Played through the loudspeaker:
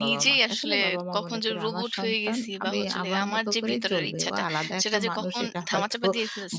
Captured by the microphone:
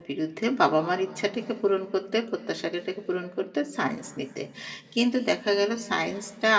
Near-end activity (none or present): present